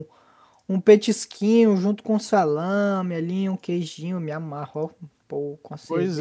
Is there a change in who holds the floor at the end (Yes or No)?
Yes